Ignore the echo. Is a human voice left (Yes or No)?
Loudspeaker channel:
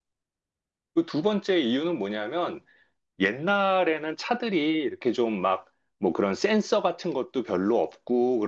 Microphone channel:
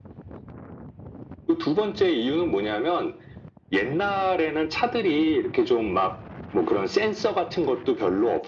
No